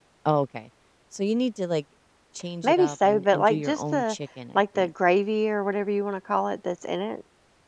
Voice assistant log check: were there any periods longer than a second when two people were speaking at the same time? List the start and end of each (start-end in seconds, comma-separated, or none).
2.6-4.2